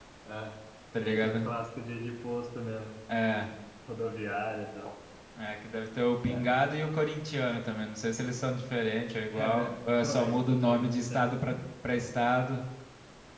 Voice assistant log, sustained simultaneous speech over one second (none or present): present